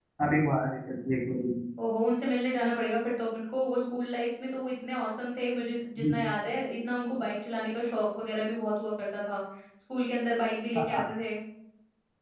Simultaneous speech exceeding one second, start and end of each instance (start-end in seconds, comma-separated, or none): none